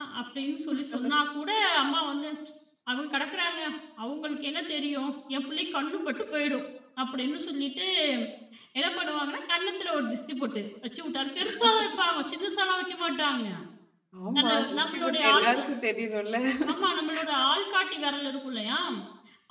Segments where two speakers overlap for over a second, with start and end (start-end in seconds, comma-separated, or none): 14.4-15.6